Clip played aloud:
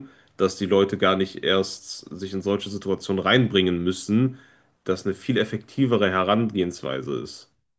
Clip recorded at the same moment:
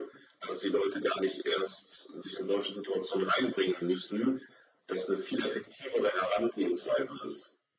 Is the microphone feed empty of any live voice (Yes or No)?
Yes